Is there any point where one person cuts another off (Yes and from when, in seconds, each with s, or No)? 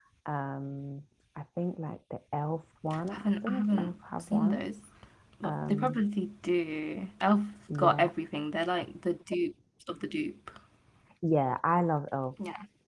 Yes, from 3.1 s